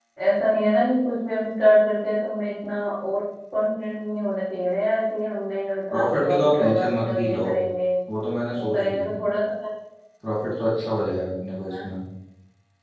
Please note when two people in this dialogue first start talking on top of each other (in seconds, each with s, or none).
5.9 s